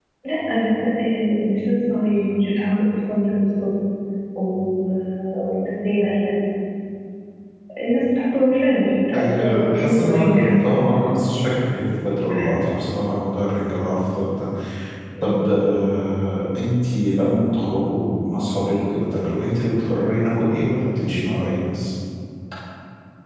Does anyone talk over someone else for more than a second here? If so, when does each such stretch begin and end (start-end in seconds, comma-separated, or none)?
9.1-10.4